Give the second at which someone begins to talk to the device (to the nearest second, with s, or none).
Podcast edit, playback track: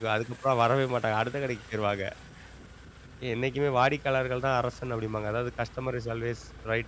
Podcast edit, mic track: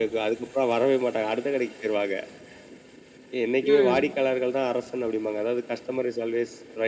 4 s